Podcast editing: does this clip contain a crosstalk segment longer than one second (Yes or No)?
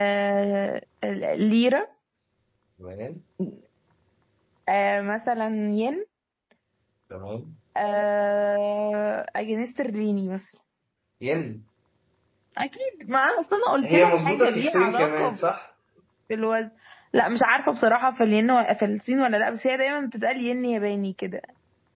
Yes